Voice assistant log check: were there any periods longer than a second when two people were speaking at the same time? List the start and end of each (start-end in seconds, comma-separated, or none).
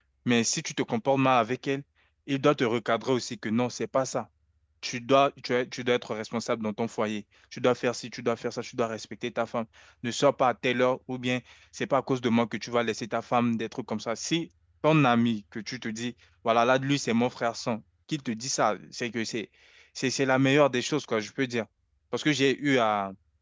none